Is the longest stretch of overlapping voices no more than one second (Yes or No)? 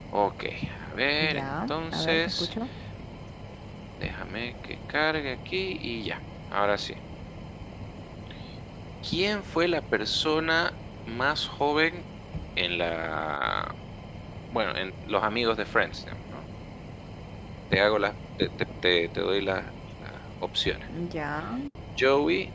No